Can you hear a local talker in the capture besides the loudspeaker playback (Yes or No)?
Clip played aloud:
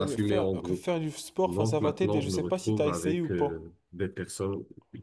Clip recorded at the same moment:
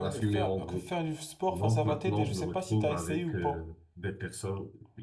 No